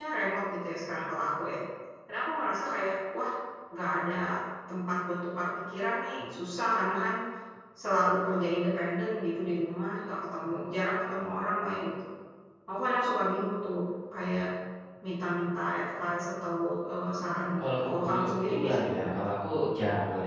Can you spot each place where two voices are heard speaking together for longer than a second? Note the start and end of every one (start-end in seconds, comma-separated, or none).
17.6-19.1